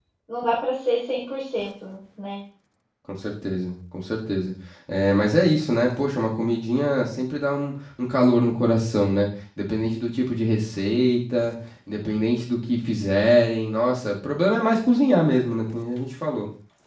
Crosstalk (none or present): none